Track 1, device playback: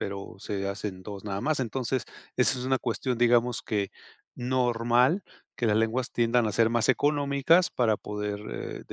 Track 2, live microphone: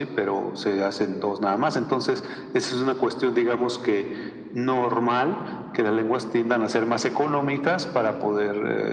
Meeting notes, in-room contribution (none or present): none